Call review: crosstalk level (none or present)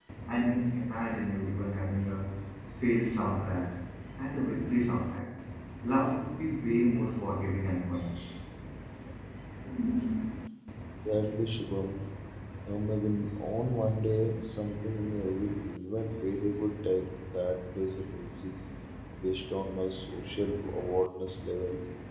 none